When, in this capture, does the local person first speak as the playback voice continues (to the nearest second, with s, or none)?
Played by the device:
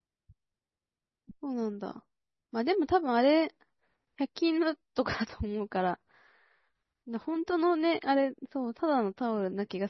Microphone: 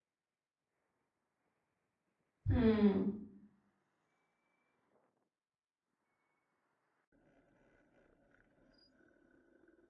2 s